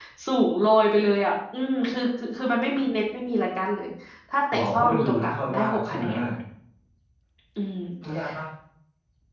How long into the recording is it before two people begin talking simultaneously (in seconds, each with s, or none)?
4.5 s